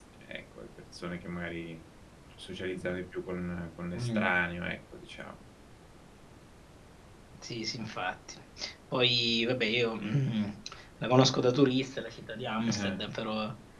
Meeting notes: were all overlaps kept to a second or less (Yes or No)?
Yes